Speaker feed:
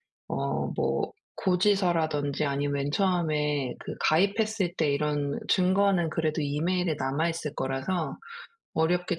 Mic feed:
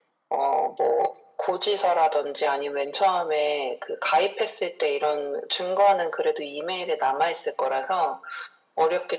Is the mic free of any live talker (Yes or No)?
Yes